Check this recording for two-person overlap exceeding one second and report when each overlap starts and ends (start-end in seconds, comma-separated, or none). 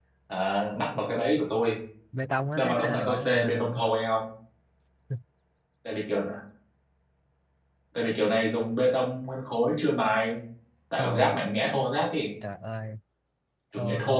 2.5-3.8